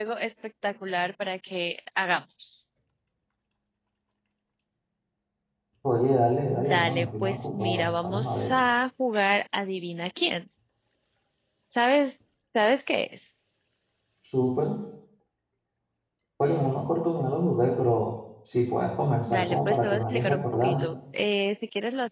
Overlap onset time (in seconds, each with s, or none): 6.6 s